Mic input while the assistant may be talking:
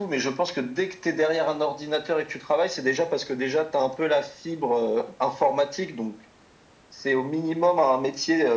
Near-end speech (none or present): none